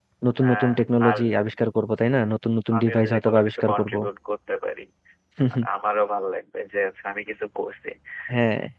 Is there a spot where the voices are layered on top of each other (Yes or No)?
Yes